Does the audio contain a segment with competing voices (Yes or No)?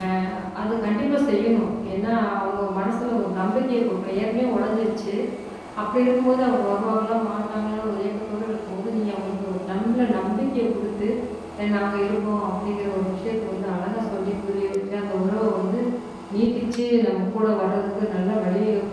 No